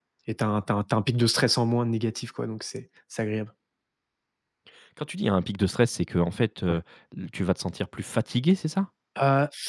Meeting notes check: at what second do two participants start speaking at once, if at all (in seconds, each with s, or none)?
none